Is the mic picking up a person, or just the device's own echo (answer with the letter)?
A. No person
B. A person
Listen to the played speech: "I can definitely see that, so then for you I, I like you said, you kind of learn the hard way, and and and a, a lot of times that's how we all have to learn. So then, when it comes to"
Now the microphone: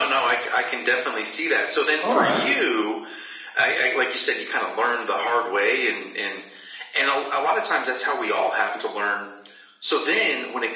B